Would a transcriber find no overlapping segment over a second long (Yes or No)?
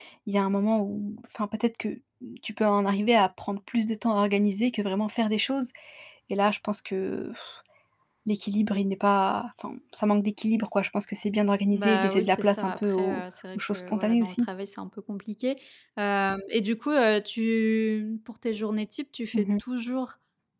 No